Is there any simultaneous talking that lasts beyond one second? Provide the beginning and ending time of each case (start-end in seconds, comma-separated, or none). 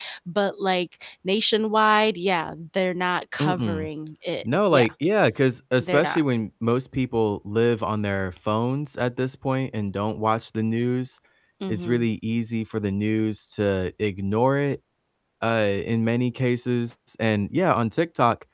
none